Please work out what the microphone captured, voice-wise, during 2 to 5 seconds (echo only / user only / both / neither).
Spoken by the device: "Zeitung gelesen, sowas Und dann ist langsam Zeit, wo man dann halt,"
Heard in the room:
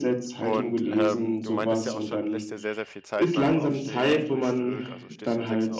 both